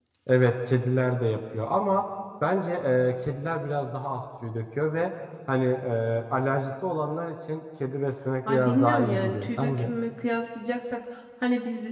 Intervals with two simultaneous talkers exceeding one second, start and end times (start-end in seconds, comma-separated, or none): 8.5-9.9